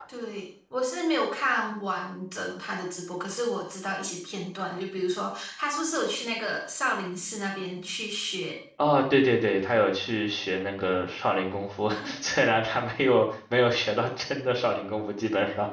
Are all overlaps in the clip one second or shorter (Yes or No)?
Yes